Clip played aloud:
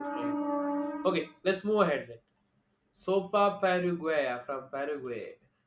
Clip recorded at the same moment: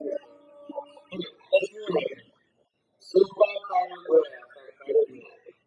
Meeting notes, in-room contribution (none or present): none